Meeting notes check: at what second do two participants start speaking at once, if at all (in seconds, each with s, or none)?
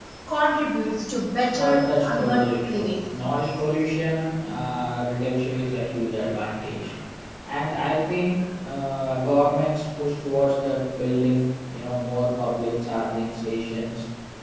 1.4 s